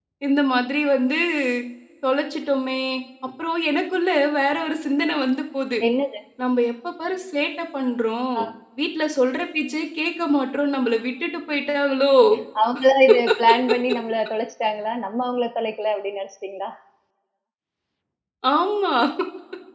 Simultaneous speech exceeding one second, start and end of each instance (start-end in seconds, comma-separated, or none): none